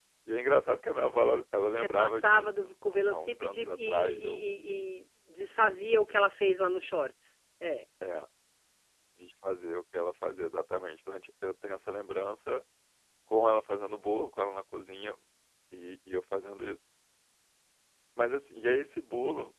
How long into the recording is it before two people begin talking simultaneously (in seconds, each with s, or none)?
1.8 s